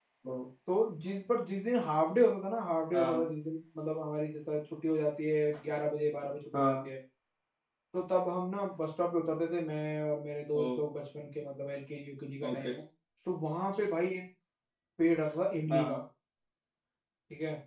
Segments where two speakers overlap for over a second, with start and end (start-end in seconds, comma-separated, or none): none